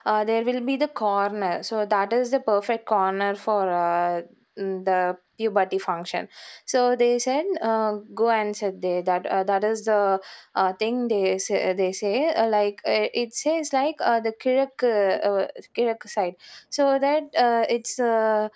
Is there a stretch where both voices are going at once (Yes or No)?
No